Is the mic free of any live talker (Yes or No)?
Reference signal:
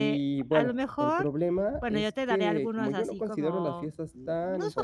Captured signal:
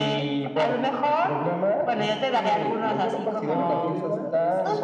No